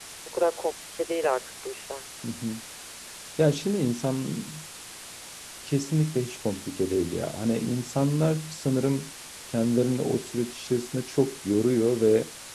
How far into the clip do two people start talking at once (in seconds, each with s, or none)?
none